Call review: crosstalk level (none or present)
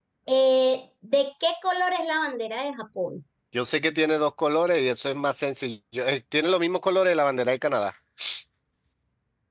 none